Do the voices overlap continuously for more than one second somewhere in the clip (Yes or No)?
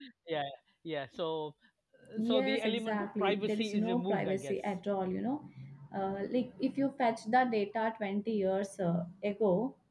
Yes